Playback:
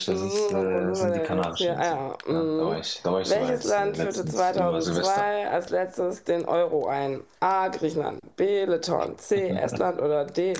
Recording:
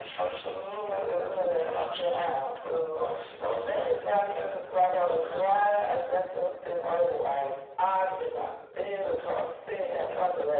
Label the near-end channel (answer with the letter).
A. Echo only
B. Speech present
A